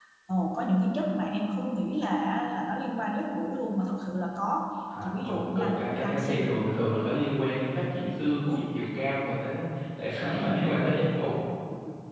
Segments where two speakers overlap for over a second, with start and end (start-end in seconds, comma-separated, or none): 5.0-6.6